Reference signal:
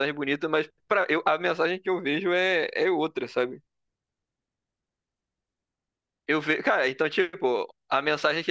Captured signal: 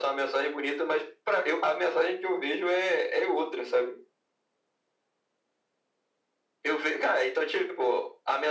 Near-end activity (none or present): none